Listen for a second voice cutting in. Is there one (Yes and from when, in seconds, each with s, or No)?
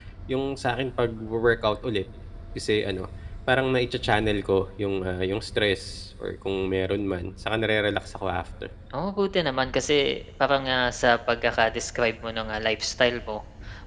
No